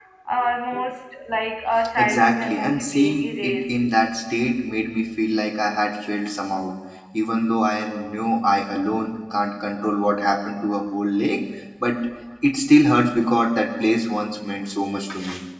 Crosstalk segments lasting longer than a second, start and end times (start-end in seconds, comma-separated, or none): 2.0-3.6